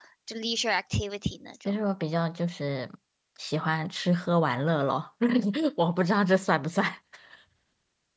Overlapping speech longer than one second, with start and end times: none

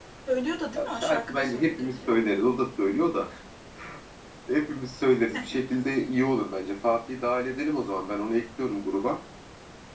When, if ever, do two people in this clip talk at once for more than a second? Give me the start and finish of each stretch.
0.9-2.2

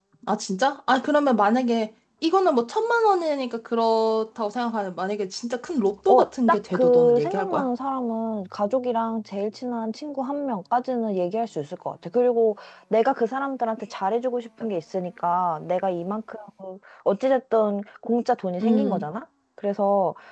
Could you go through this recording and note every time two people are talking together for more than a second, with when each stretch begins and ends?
6.1-7.7

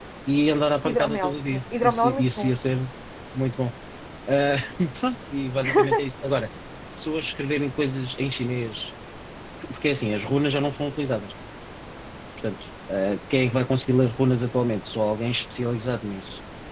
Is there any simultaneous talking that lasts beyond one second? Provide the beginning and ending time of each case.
0.8-2.8

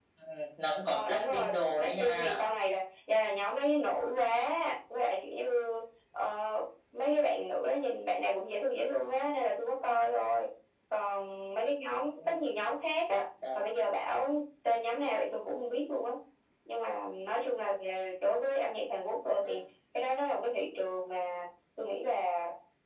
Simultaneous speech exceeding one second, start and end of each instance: 0.9-2.4

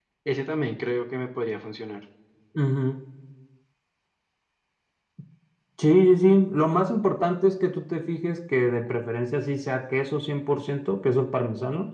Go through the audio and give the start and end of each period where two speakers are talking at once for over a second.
none

